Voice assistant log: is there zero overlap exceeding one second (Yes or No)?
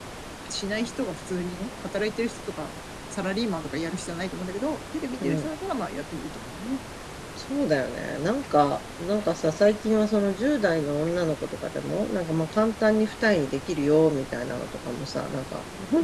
Yes